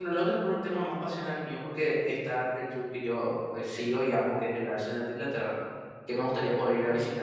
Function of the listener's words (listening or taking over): listening